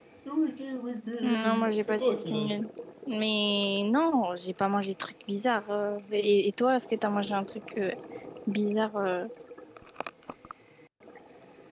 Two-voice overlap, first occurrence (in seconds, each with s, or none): 1.2 s